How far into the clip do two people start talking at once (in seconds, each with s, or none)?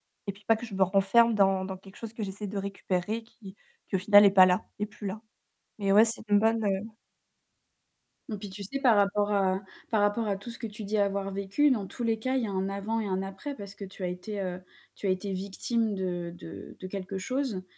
none